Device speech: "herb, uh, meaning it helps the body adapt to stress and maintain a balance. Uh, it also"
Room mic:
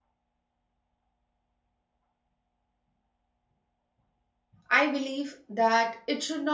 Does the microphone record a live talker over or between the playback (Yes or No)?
Yes